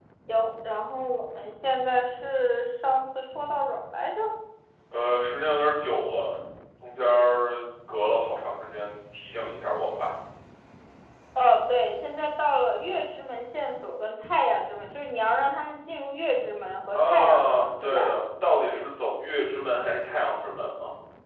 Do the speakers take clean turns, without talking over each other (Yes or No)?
No